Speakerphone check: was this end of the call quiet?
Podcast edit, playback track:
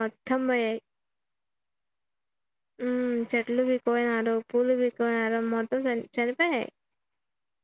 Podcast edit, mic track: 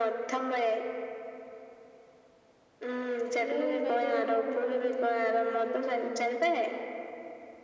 No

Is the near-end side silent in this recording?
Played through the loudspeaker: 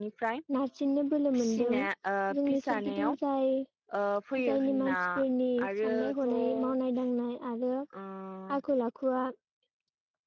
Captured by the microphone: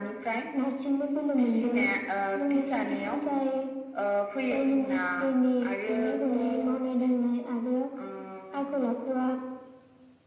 Yes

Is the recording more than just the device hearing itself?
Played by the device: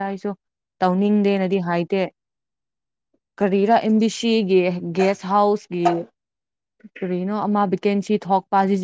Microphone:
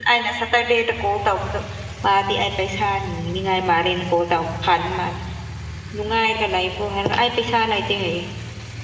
Yes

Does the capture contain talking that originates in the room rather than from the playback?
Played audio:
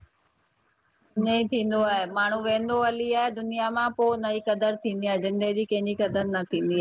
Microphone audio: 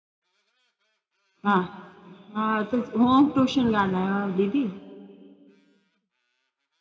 Yes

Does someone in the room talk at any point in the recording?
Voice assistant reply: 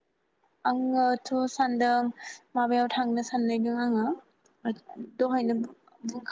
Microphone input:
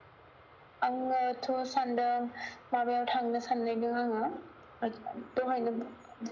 No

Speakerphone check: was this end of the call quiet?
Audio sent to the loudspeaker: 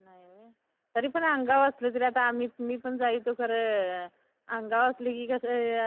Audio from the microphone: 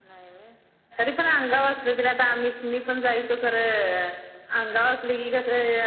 Yes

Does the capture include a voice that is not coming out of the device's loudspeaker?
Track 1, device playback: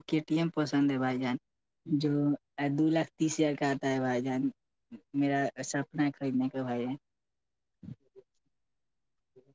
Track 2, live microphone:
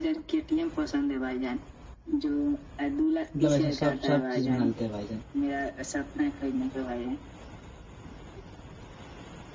Yes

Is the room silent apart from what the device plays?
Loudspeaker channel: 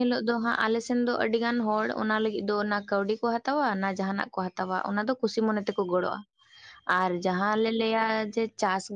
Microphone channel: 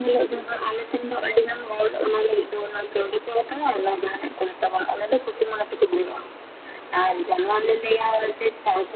Yes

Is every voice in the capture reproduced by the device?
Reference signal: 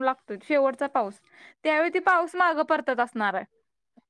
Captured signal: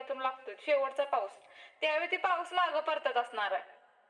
Yes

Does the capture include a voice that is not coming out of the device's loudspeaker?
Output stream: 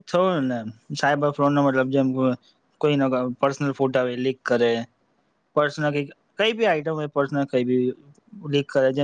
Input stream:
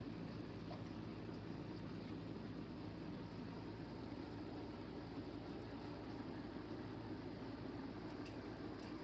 No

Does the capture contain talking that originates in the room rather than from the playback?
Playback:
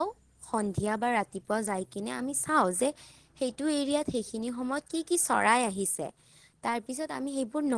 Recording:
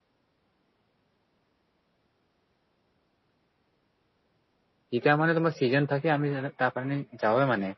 Yes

